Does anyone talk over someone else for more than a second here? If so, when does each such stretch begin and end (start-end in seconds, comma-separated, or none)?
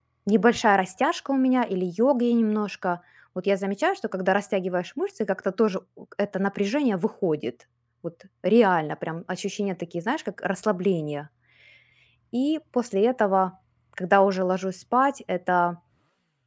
none